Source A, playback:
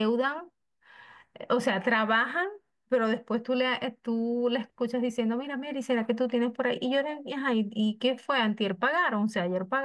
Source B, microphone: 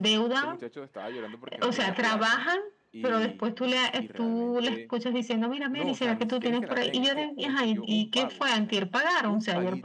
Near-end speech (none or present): present